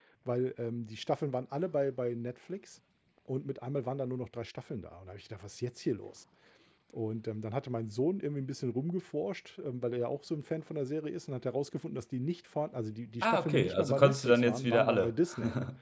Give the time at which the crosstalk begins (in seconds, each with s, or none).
13.2 s